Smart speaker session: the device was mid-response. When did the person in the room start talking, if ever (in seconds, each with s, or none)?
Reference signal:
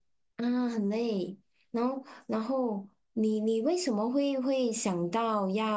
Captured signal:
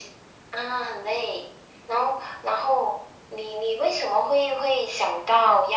none